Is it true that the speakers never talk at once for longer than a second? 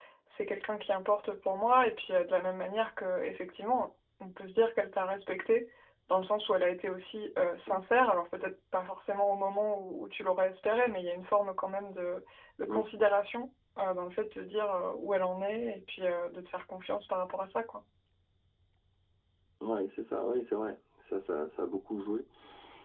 Yes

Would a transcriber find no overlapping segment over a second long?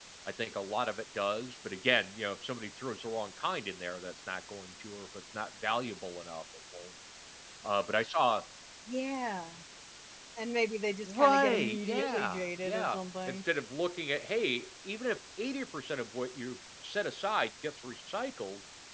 No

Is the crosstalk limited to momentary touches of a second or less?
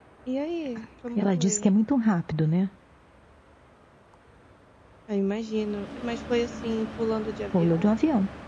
Yes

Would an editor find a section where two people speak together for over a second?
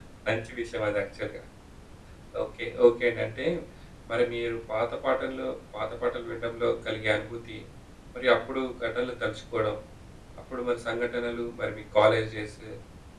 No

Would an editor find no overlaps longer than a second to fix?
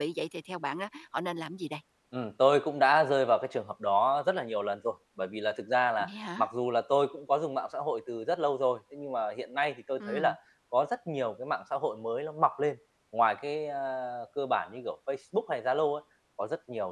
Yes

